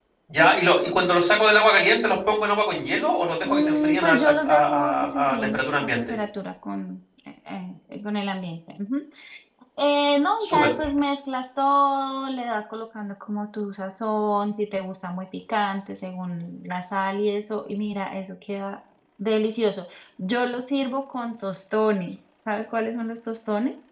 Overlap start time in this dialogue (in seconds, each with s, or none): 3.4 s